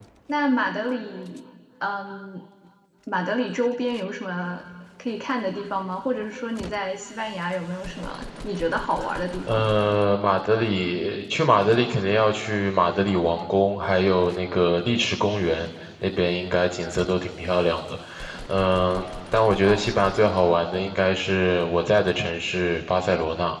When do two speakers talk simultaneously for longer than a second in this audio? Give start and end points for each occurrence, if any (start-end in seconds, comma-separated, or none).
none